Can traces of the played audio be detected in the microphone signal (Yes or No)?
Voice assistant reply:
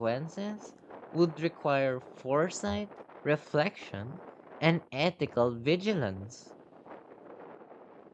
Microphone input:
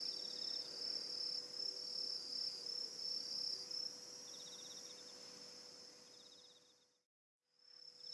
No